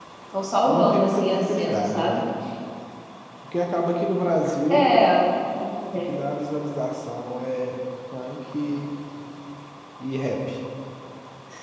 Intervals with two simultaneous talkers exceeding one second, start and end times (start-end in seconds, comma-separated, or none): 0.7-2.2